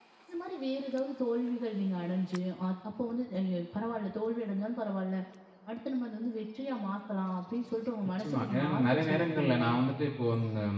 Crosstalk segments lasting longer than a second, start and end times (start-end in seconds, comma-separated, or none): 8.2-9.7